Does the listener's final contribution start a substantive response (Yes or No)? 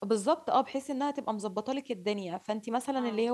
No